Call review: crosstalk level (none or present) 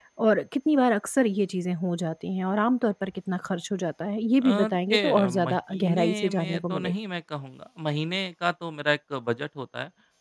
present